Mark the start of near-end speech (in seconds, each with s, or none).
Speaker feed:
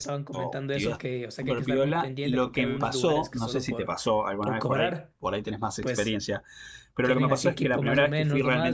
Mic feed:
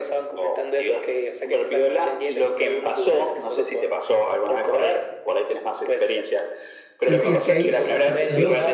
7.0 s